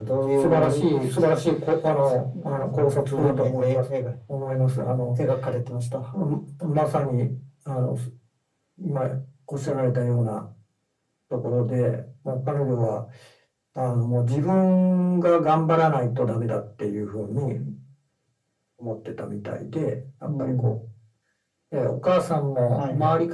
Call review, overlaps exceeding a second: present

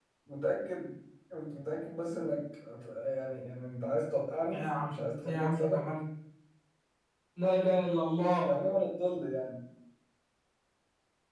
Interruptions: present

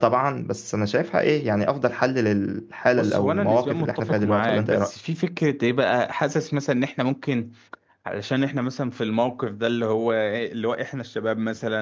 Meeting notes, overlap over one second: present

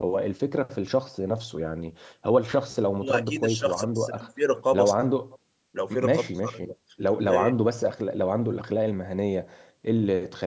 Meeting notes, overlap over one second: present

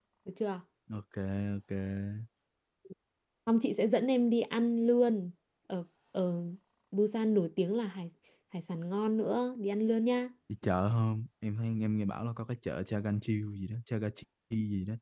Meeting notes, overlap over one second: none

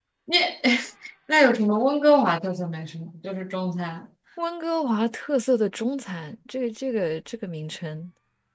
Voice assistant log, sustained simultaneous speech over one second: none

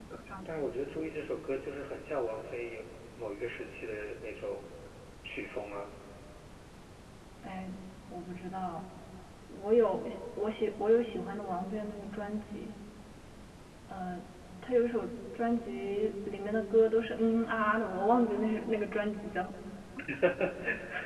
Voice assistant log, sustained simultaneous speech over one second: none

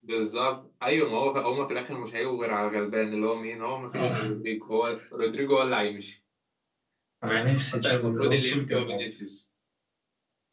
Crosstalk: present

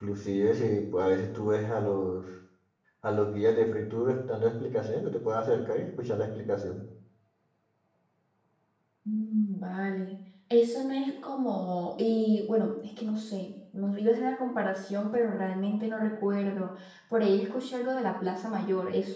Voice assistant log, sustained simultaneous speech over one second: none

